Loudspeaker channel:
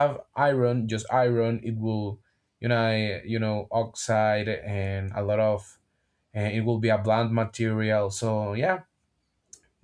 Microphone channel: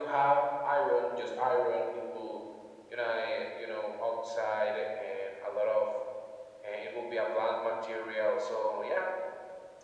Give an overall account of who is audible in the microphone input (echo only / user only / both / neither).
echo only